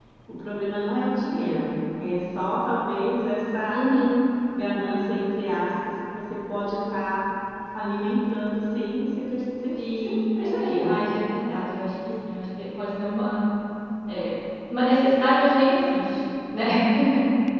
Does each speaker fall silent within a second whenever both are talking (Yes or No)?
No